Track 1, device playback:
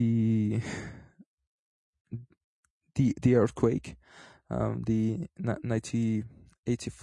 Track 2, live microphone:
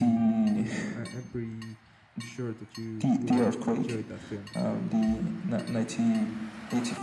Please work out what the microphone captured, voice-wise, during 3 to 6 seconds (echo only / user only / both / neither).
both